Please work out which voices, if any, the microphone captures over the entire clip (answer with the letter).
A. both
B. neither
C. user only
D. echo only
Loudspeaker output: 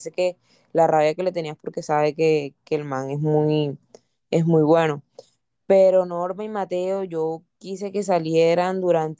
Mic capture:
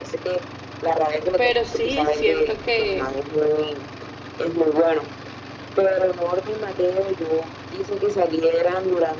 A